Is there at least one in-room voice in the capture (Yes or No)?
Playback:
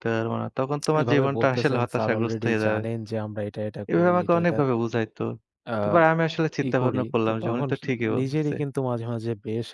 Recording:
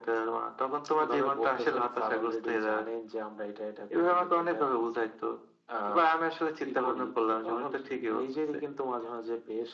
No